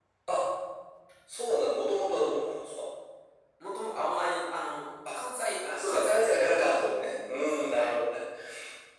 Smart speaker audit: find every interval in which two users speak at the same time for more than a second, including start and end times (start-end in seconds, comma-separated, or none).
5.9-7.9